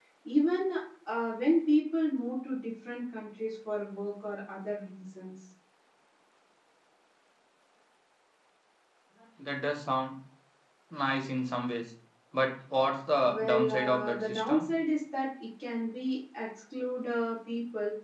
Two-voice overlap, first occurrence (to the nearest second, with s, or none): 13 s